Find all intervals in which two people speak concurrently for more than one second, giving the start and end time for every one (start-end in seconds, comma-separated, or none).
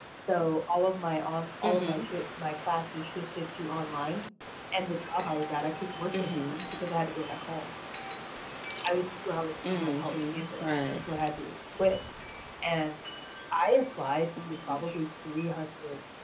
9.7-11.0